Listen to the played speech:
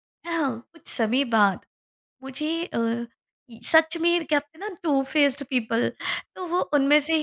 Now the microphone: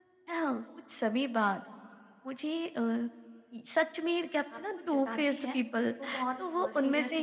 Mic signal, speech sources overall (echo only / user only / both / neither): both